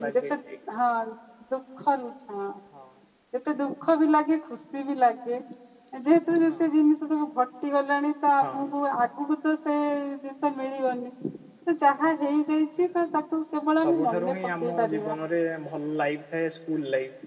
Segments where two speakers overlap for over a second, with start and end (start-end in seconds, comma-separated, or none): 13.8-15.2